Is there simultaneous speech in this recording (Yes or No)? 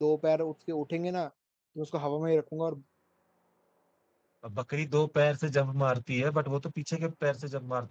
No